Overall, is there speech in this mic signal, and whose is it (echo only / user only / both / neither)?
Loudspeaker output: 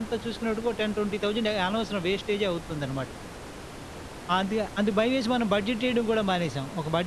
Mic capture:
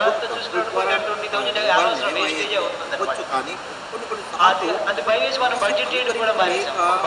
both